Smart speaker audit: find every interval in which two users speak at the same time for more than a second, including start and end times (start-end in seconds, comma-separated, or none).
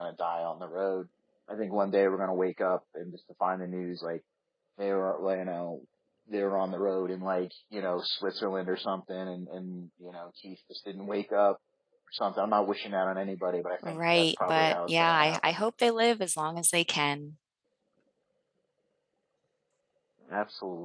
13.8-15.6